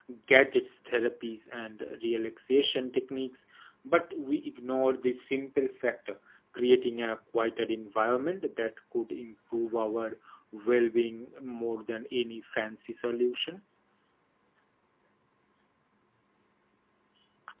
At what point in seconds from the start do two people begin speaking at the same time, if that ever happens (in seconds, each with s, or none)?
none